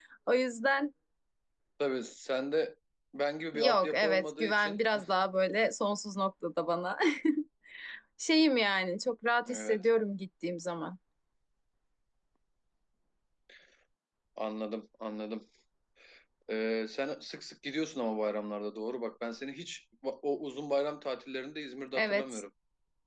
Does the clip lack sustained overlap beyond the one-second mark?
No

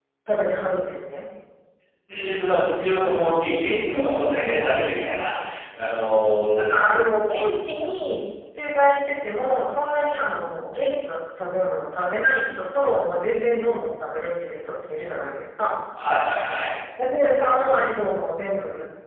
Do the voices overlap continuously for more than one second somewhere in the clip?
No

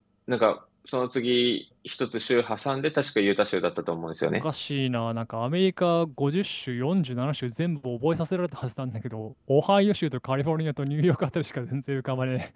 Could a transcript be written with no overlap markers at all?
Yes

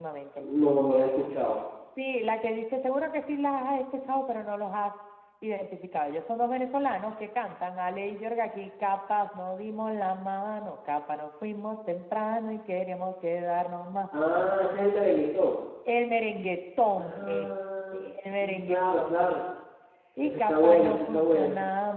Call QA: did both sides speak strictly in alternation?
No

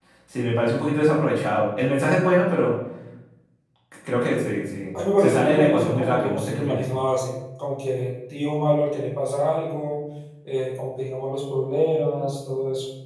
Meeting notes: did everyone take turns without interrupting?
No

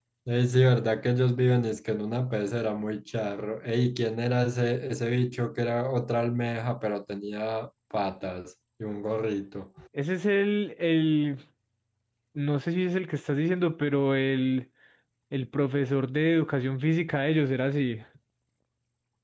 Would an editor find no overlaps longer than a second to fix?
Yes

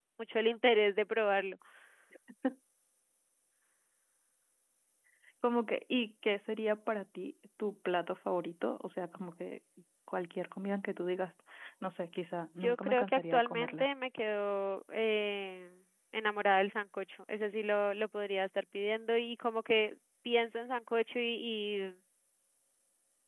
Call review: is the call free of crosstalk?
No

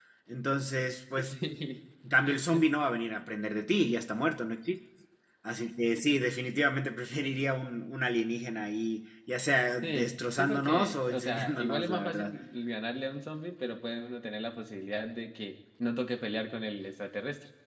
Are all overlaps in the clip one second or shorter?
No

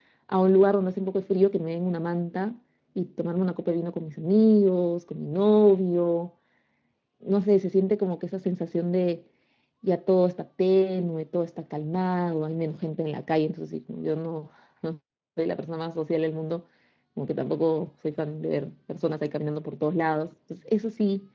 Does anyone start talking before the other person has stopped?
No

